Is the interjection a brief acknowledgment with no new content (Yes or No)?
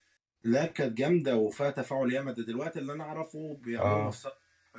Yes